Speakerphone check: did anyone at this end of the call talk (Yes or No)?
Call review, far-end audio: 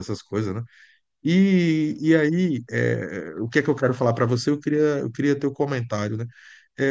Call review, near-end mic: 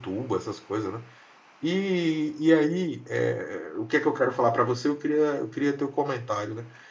No